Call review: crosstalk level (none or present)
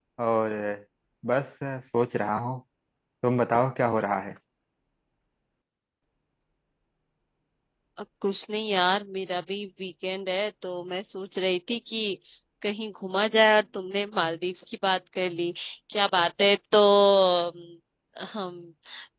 none